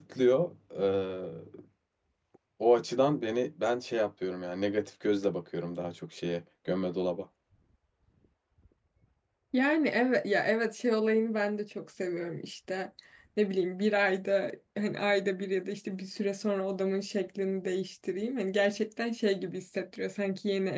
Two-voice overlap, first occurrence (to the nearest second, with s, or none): none